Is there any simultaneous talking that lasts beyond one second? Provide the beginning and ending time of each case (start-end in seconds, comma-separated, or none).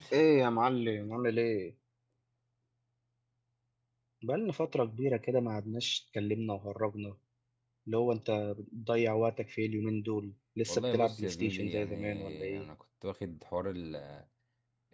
10.7-12.7